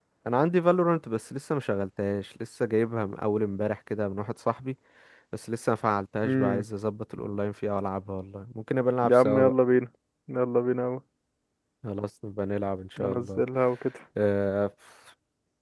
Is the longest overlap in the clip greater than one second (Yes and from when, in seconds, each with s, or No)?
No